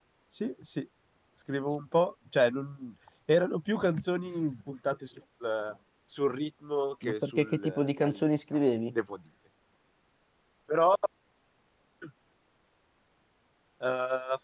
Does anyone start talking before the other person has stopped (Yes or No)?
Yes